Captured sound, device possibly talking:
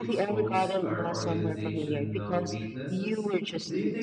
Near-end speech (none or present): present